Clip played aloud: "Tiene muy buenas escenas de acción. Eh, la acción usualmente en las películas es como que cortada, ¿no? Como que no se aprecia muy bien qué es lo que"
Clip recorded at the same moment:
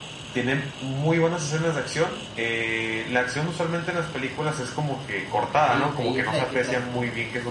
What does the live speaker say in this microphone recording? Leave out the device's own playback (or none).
Ok, ok, ¿y esa de qué trata? Cuéntame.